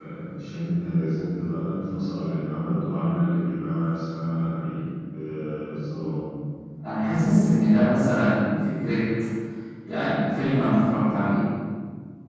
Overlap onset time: none

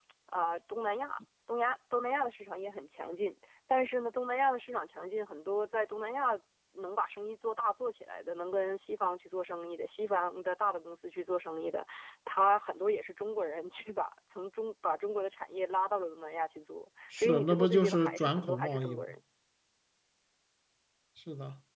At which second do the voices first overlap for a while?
17.1 s

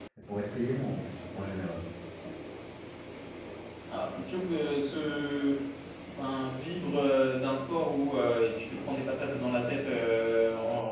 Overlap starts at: none

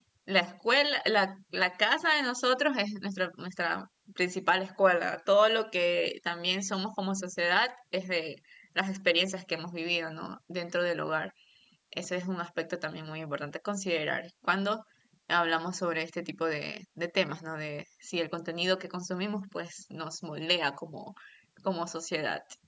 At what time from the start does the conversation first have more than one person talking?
none

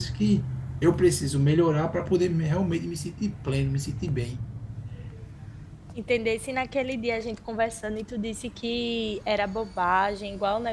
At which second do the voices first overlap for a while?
none

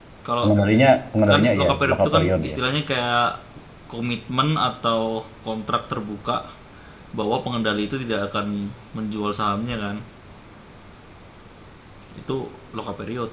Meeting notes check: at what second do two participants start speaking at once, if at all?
1.3 s

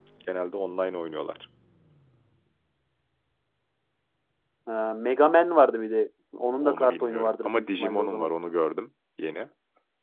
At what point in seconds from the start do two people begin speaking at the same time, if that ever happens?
6.6 s

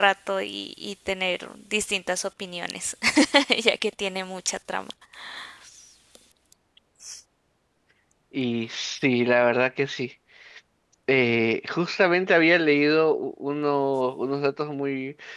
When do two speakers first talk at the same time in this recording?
none

